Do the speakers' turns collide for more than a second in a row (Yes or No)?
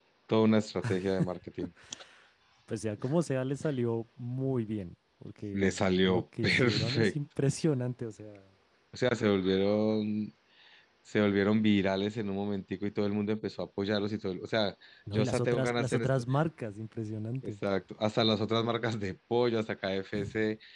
Yes